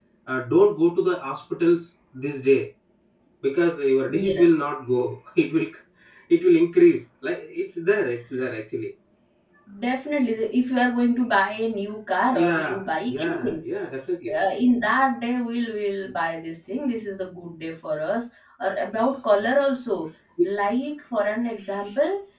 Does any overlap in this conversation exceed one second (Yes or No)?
Yes